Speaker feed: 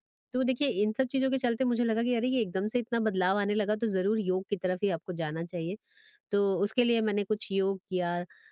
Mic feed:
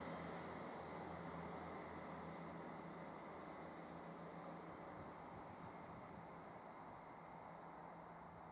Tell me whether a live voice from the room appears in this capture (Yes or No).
No